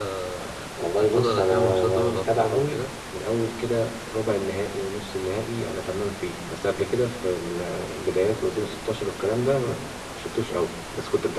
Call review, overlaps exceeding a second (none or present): present